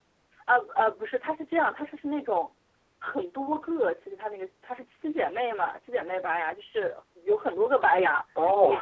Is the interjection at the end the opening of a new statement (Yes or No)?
No